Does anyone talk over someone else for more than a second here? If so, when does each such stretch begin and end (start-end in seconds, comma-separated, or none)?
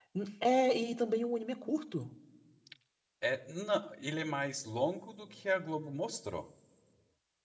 none